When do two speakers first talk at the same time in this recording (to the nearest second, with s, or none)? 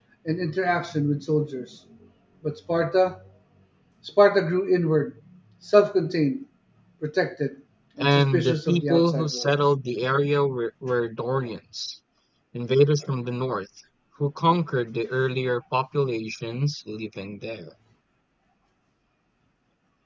8 s